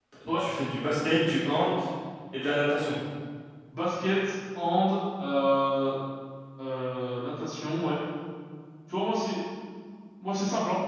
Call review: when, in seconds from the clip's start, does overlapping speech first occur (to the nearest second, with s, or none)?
none